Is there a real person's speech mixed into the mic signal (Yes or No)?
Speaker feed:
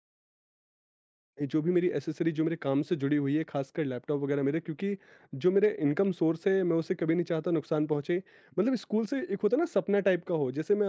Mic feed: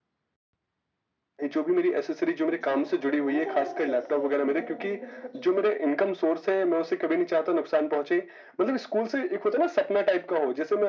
Yes